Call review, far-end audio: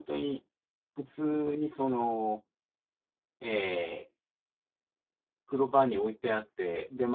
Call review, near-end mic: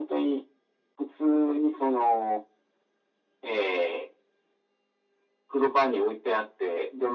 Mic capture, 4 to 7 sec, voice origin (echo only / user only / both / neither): echo only